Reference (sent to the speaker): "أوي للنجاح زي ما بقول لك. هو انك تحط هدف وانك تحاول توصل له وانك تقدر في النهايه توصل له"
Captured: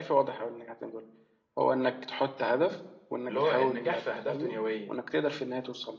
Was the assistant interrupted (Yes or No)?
Yes